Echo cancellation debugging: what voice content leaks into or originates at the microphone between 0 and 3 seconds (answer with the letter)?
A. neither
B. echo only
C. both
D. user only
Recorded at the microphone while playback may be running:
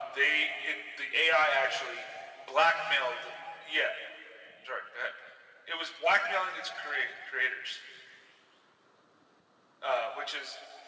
B